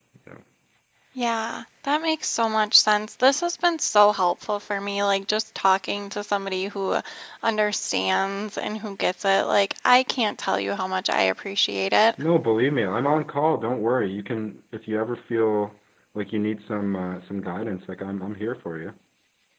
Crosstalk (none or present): none